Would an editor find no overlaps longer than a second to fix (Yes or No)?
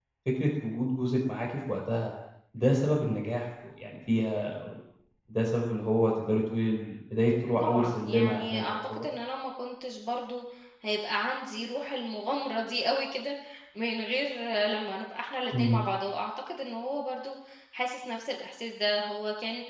No